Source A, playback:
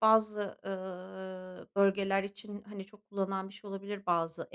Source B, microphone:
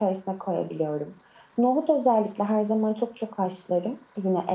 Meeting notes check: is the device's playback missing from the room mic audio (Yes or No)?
Yes